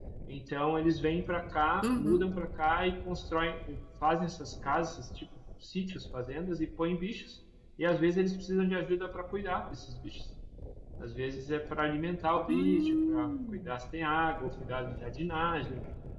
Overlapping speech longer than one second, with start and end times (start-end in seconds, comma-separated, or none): 12.5-13.7